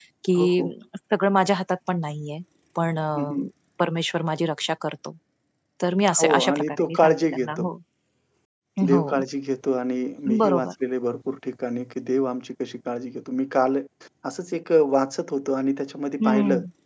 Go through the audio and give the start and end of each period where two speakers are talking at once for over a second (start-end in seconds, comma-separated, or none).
6.2-7.7